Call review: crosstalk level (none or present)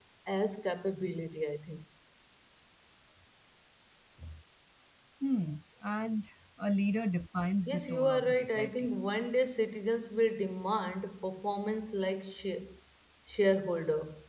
present